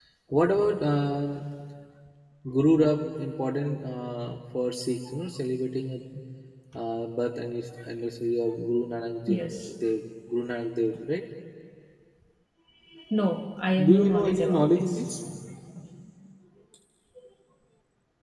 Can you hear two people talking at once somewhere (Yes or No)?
Yes